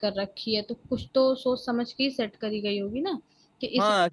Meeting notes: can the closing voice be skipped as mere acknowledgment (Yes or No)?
No